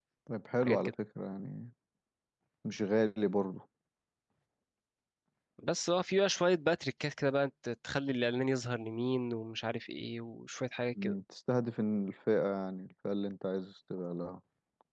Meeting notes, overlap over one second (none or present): none